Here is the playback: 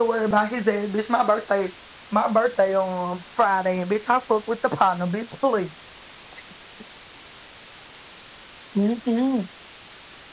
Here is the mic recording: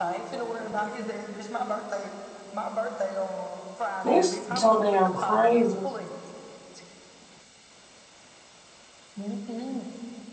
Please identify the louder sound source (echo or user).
user